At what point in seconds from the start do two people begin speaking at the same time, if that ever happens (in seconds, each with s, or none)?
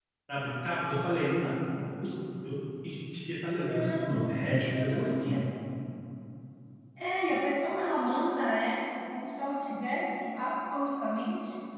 3.6 s